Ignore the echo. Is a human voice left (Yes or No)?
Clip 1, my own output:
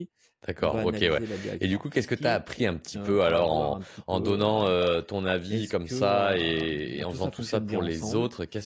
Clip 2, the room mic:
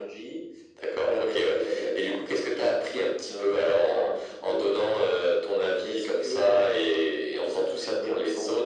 No